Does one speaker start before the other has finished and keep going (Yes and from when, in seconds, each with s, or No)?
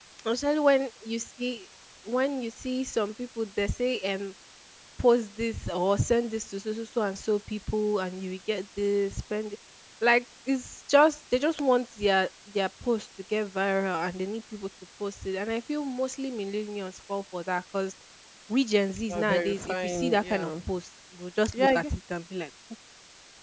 Yes, from 19.1 s